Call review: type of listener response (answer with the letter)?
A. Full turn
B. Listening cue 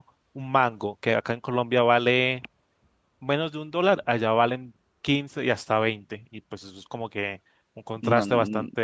A